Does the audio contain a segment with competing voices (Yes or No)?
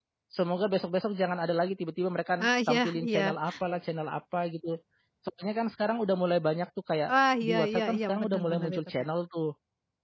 Yes